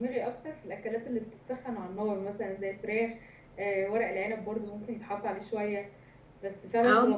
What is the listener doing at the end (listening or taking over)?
listening